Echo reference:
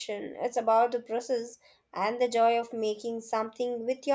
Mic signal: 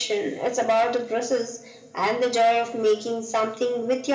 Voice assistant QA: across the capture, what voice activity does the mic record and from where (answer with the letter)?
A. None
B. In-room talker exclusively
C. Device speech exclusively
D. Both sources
C